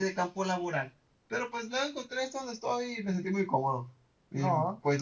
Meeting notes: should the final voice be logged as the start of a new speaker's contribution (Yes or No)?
No